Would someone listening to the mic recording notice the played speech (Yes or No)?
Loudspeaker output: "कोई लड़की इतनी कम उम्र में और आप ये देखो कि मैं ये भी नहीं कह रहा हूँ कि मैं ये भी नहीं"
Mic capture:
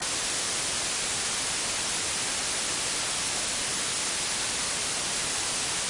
No